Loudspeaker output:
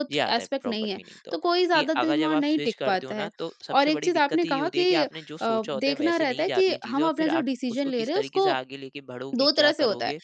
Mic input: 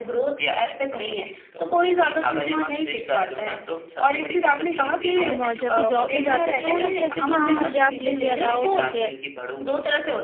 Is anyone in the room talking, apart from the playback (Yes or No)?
Yes